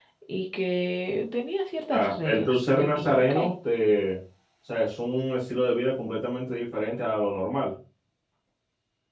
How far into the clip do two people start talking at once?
1.9 s

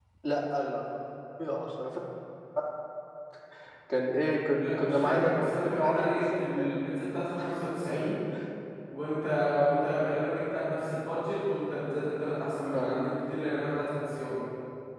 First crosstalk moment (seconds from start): 4.5 s

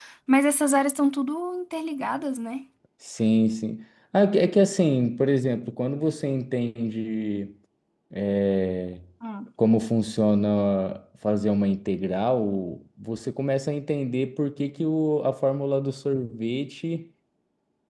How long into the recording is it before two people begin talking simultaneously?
none

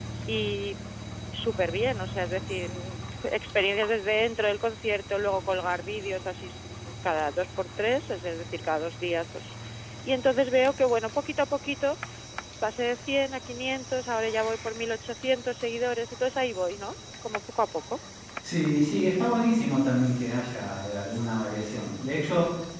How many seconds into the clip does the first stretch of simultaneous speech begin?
none

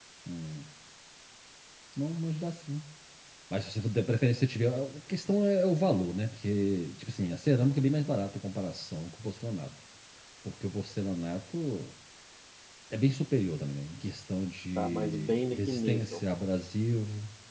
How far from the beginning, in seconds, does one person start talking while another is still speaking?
14.8 s

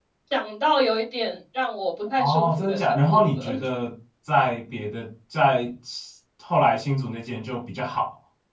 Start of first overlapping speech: 2.2 s

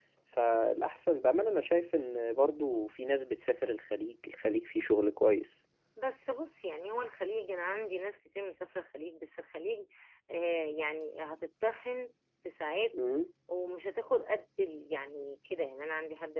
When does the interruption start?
none

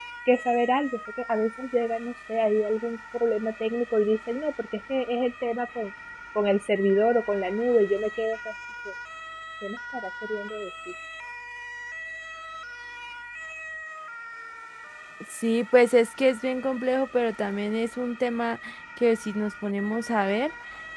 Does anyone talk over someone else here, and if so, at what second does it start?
none

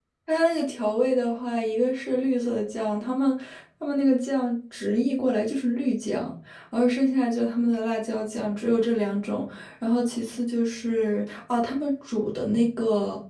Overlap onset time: none

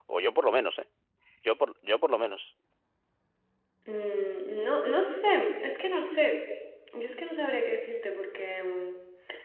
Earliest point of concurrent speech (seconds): none

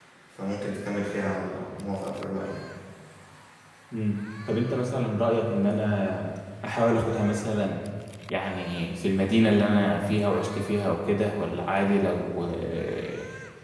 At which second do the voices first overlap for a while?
none

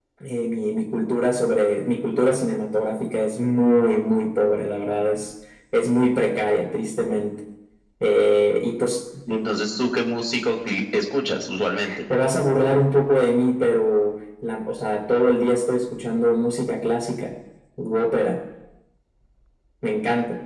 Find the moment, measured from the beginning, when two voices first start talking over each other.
none

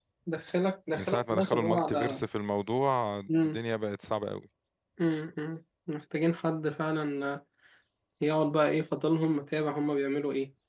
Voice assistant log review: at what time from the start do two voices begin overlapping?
0.9 s

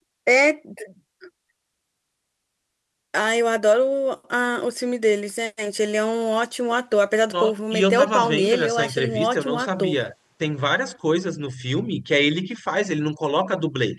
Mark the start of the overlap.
7.3 s

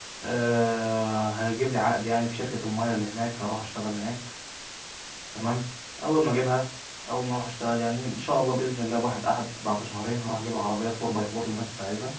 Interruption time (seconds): none

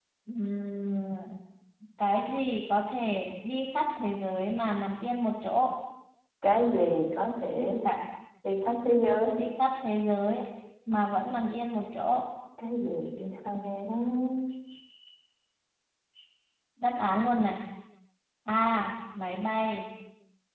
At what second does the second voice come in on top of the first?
none

